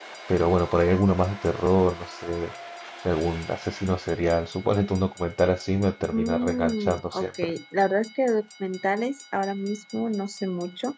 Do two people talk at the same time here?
Yes, from 6.1 s

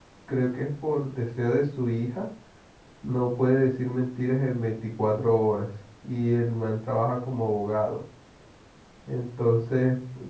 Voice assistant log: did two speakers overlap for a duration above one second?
No

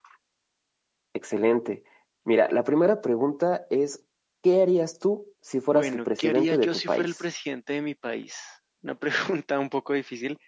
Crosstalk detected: Yes, from 5.7 s

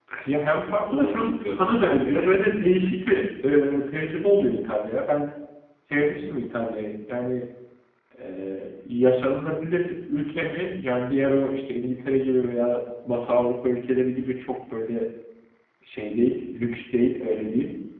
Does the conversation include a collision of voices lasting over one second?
Yes, from 0.9 s

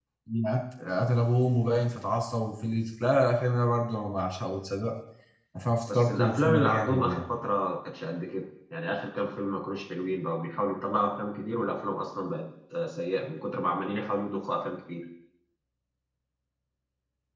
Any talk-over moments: Yes, from 5.9 s

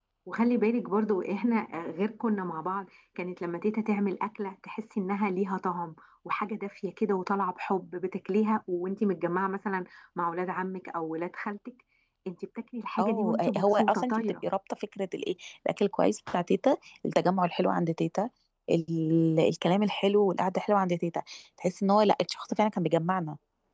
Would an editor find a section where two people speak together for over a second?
Yes, from 13.0 s

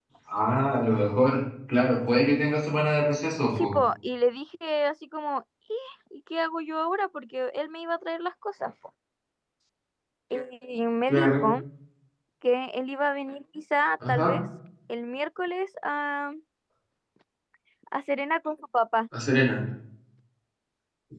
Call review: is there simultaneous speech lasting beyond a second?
No

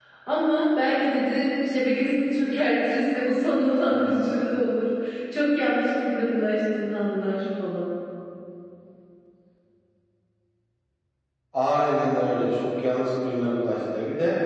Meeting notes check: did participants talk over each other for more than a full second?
No

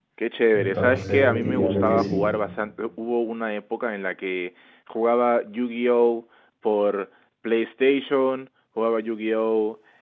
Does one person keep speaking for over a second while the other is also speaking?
Yes, from 0.6 s

